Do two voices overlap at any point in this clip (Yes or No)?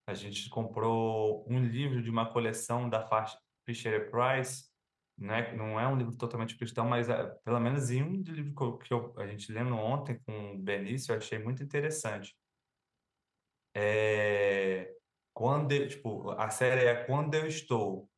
No